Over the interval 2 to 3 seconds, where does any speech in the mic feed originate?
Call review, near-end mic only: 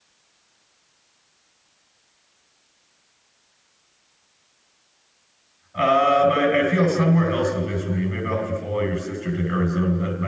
neither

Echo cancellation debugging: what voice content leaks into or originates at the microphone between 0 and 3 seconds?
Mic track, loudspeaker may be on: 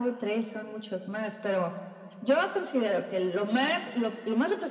echo only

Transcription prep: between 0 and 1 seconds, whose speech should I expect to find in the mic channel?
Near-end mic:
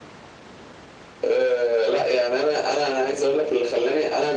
neither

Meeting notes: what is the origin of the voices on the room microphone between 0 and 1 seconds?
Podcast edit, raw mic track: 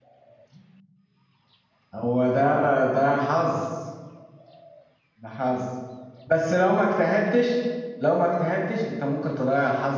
neither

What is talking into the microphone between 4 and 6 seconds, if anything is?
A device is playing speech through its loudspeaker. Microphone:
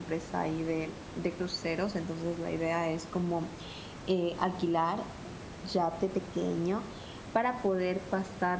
user only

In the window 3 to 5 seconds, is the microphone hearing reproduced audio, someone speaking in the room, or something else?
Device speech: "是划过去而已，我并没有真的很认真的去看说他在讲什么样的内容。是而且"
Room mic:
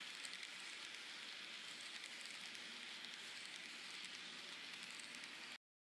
neither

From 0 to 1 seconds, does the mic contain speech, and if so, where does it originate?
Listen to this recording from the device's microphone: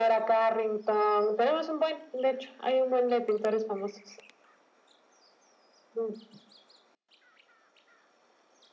echo only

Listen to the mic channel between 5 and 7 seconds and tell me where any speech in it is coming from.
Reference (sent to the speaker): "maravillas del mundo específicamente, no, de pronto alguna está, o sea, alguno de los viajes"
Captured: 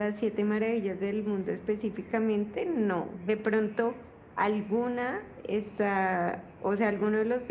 echo only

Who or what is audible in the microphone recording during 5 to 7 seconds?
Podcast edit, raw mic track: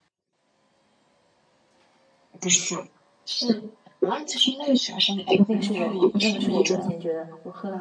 both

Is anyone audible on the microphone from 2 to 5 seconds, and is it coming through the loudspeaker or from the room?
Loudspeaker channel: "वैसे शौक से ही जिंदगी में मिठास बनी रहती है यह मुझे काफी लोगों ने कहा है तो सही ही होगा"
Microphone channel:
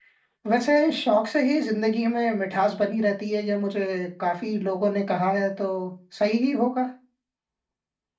echo only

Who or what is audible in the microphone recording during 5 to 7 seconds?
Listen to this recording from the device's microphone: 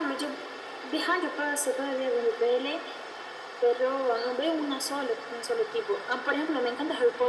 echo only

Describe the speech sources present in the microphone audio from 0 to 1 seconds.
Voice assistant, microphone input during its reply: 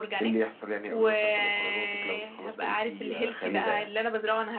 echo only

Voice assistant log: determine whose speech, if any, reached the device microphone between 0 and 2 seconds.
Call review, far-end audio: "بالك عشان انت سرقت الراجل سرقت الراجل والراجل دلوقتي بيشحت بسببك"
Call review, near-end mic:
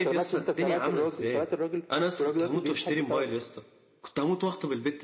both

